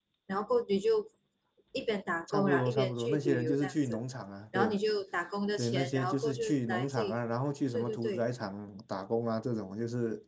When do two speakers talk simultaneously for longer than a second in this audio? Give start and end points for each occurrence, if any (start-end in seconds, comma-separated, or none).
2.3-4.0, 5.6-7.2